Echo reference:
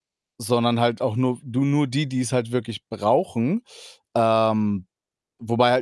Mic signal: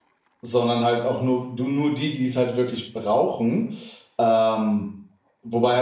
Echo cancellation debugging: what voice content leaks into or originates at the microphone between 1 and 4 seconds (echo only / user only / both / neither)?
echo only